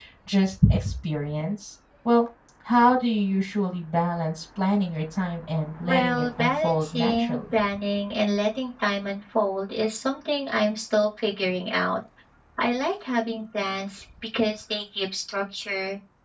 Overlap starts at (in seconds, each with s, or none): 5.8 s